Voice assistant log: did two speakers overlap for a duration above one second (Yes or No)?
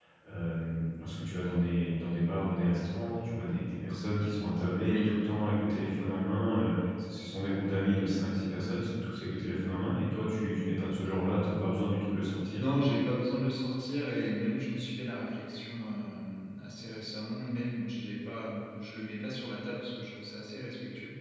No